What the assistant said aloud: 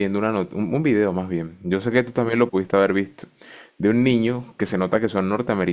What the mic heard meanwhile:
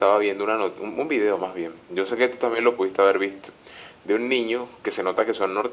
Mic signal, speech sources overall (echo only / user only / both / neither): echo only